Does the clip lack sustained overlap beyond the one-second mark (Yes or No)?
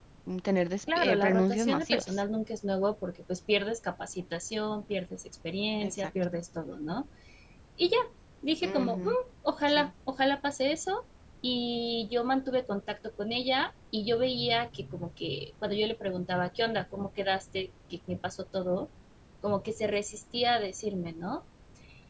No